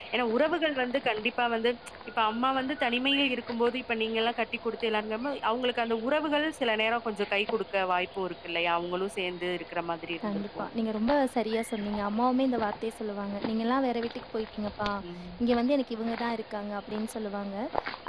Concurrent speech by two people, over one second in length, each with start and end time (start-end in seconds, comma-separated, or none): none